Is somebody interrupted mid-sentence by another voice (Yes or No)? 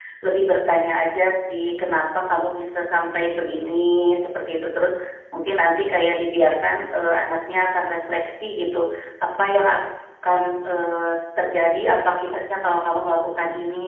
No